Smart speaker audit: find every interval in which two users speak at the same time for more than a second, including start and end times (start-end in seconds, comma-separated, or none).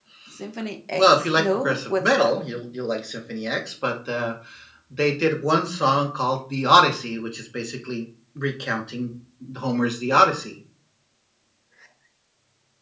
1.0-2.3